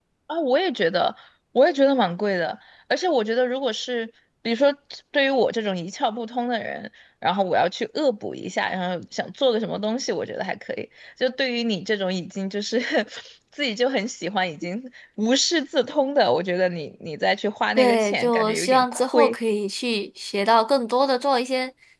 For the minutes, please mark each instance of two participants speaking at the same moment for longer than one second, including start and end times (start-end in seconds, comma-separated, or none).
17.8-19.4